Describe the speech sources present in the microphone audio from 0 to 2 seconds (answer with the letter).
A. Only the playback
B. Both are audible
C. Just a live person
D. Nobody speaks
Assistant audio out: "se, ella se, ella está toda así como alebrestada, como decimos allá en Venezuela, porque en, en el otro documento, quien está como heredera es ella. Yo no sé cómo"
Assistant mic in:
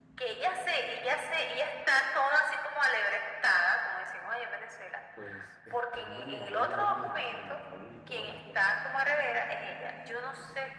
A